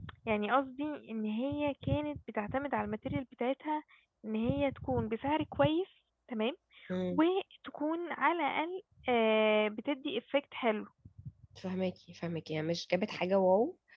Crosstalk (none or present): none